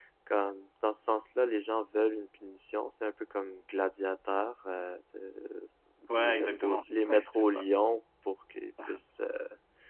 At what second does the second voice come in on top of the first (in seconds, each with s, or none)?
6.2 s